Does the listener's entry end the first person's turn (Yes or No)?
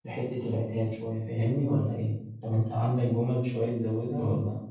Yes